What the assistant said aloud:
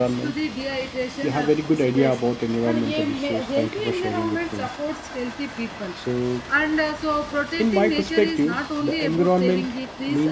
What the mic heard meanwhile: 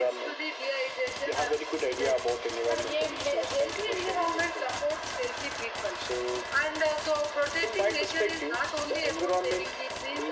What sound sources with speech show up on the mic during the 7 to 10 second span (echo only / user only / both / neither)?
echo only